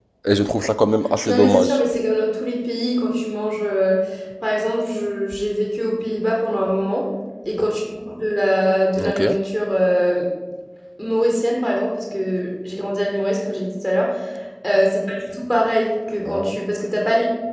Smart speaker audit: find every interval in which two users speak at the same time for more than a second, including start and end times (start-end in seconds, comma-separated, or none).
none